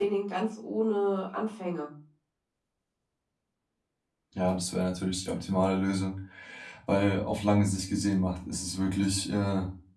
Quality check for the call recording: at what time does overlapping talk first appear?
none

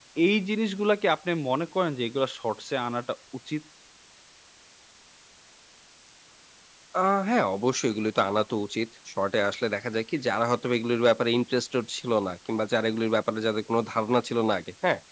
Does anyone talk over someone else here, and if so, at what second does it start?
none

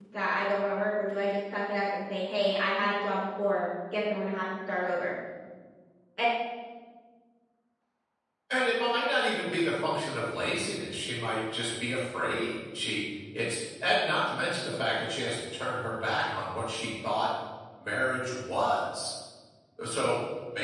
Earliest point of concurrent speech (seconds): none

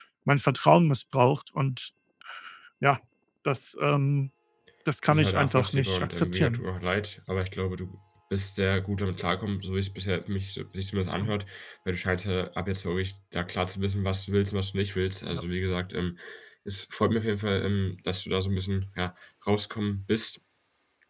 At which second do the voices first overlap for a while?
5.1 s

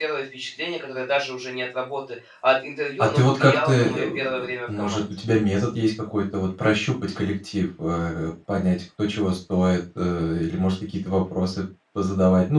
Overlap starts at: 3.0 s

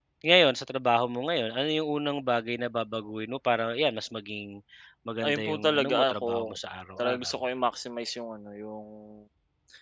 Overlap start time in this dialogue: 5.2 s

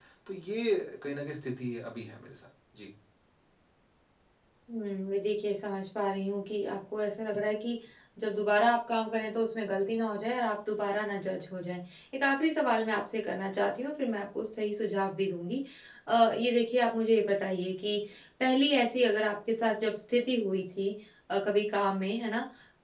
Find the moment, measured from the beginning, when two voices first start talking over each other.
none

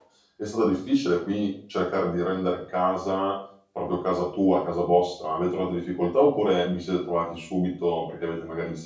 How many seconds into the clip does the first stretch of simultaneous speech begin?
none

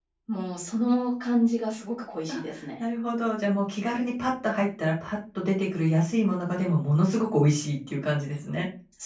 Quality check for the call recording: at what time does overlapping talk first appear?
none

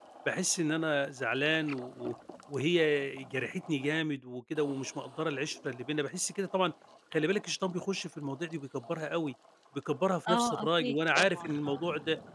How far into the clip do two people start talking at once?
10.3 s

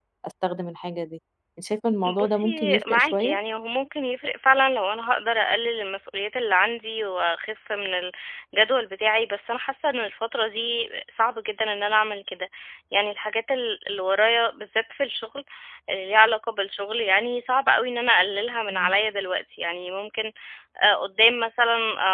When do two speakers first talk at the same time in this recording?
2.0 s

